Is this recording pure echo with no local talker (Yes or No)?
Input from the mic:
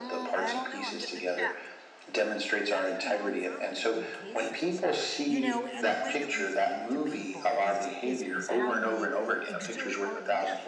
No